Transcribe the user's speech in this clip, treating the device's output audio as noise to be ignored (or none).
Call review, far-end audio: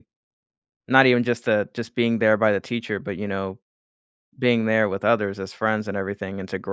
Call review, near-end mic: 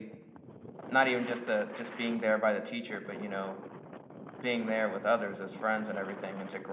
none